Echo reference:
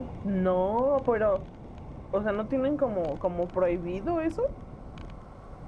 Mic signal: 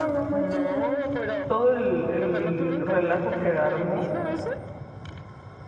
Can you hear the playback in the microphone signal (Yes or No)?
Yes